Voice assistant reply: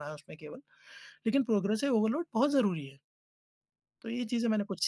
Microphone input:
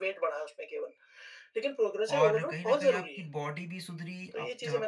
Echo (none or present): present